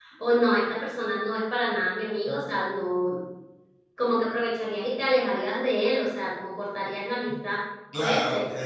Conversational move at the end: taking over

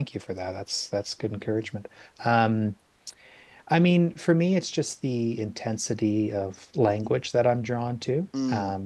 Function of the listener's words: listening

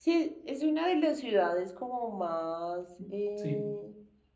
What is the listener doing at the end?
listening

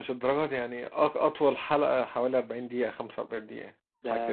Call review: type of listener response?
taking over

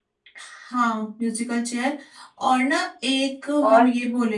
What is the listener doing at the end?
listening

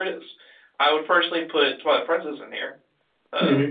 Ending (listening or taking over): taking over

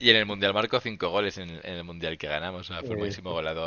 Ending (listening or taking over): listening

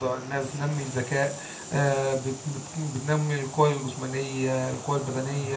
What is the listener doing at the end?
listening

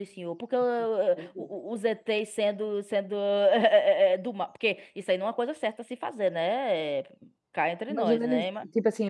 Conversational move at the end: taking over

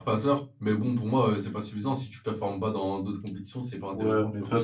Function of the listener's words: taking over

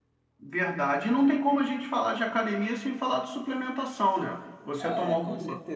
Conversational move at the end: taking over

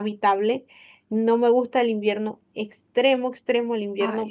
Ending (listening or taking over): listening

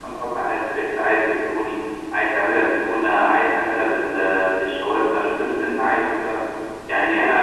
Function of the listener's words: listening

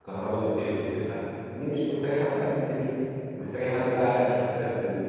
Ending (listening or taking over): listening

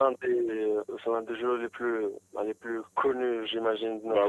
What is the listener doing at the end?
taking over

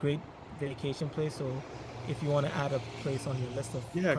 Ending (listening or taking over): taking over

